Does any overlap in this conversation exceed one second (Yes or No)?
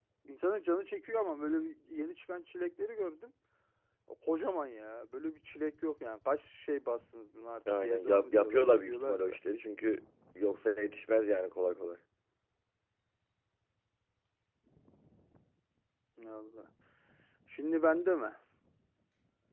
Yes